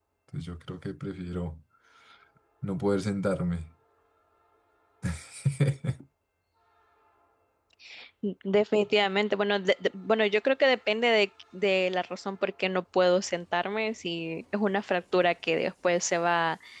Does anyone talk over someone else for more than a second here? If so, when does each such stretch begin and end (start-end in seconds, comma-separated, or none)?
none